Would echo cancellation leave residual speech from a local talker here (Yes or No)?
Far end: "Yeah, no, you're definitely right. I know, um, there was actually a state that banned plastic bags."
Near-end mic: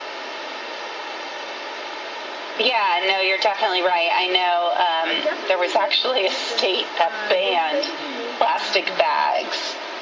Yes